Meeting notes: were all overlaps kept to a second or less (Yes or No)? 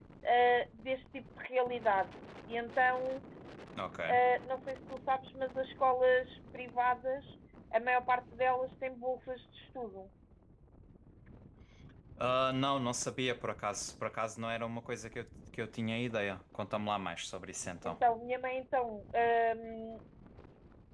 Yes